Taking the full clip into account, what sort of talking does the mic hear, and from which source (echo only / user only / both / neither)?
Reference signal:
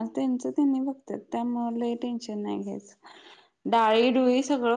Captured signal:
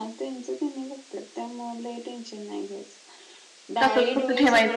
both